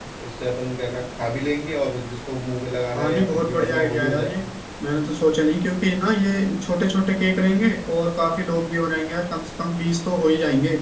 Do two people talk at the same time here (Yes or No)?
Yes